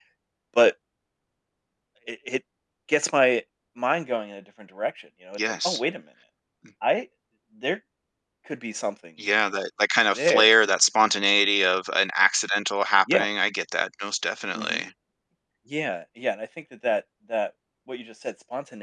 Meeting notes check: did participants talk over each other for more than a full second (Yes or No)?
No